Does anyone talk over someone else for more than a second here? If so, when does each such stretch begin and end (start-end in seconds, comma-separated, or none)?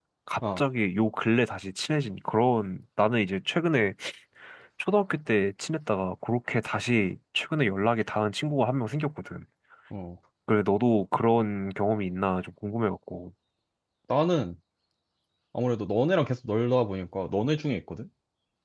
none